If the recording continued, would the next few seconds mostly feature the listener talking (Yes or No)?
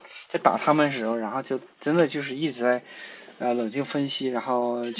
No